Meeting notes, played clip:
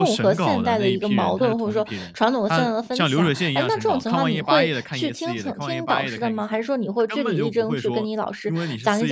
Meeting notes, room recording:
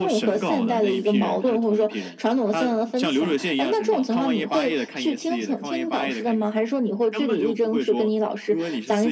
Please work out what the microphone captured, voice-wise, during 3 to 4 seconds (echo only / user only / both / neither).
echo only